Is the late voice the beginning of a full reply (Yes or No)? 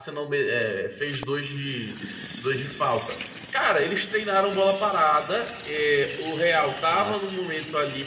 No